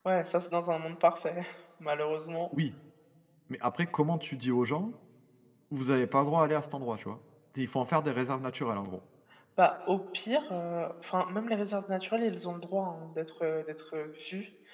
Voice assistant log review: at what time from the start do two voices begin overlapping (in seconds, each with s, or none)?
none